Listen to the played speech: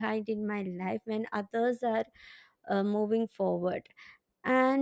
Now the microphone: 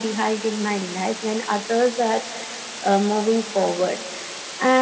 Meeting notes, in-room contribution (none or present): none